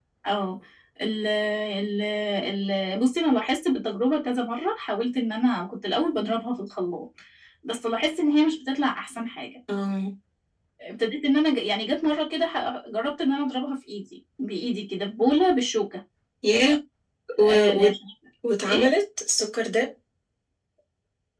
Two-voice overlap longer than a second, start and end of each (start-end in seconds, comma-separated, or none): none